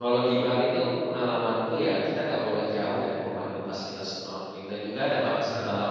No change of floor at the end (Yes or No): Yes